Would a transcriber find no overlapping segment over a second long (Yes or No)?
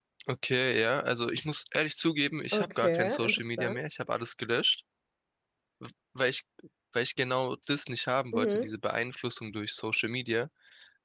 No